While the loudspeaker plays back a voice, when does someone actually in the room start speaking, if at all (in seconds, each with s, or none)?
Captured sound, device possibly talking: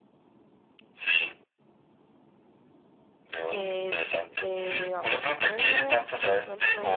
3.5 s